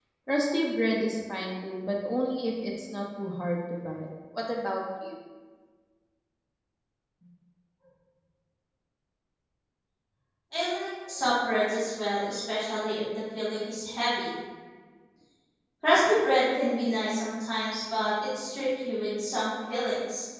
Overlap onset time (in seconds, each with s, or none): none